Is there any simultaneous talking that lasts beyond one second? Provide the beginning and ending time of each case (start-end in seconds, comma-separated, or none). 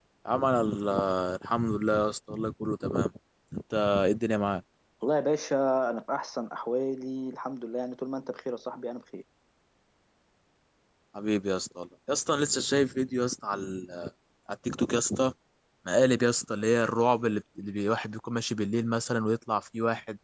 none